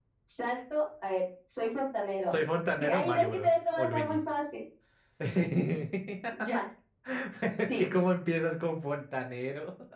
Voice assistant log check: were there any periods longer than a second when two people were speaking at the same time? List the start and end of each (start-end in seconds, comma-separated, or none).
2.8-4.2